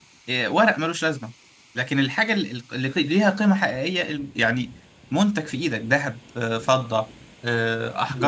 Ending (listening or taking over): taking over